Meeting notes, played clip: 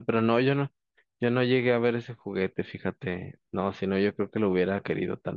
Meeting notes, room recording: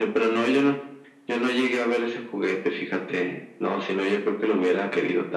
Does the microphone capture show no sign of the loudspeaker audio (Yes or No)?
No